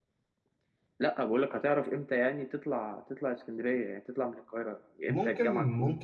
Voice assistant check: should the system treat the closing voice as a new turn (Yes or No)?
Yes